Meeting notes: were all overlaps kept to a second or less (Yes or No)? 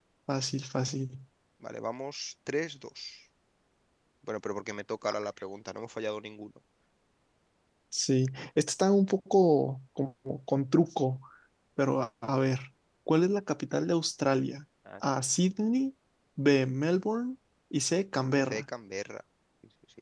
Yes